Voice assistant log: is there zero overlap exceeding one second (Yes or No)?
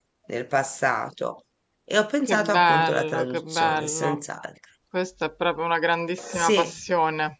No